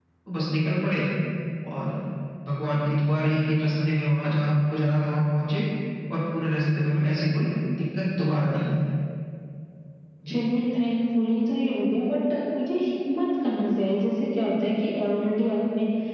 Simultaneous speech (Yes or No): No